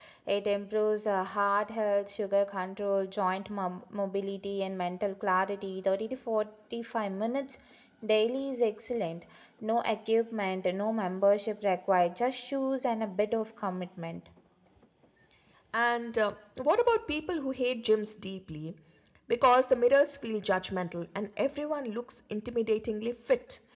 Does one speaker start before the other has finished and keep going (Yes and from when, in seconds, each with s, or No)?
No